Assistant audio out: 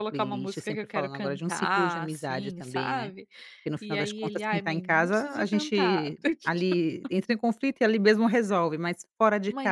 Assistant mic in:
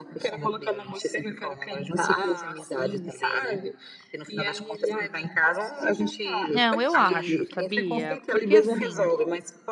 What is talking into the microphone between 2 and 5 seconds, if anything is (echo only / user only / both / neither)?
echo only